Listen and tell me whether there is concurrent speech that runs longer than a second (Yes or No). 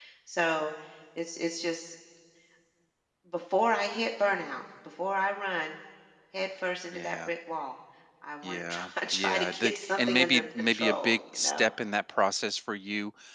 Yes